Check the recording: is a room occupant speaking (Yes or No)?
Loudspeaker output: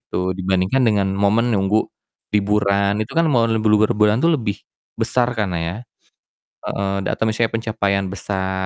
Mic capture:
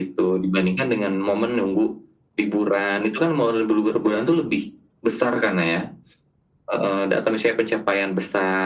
No